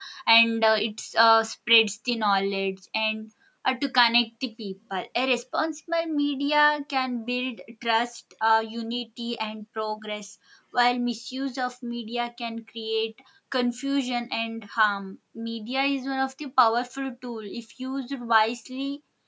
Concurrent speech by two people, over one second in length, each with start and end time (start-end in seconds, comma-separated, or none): none